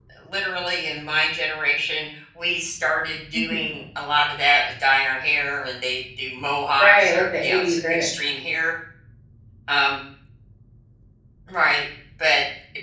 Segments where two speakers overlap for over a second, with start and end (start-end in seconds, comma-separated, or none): 6.8-8.1